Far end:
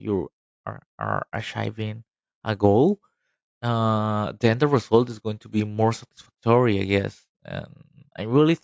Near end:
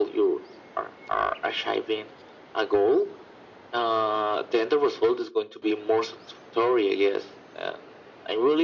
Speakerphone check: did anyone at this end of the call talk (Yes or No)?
No